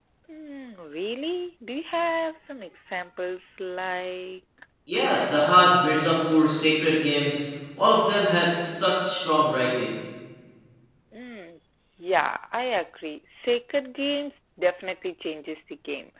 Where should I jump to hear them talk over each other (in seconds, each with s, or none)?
none